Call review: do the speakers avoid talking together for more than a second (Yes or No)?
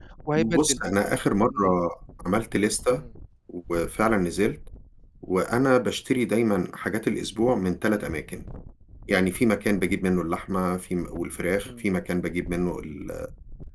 Yes